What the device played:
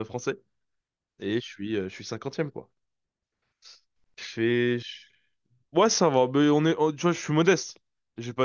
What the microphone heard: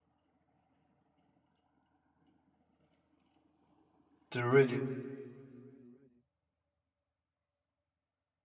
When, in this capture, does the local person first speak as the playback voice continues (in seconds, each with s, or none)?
4.3 s